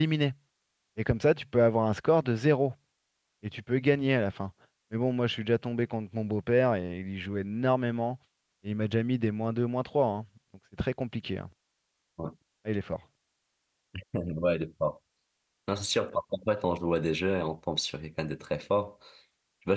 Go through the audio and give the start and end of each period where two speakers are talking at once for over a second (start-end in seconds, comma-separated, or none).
none